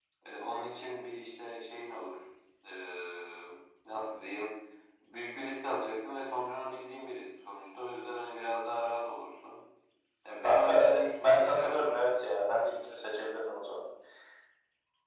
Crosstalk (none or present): present